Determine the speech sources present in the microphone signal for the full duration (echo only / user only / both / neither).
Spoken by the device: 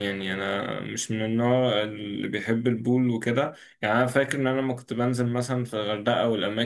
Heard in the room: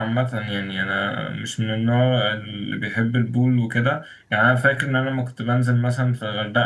echo only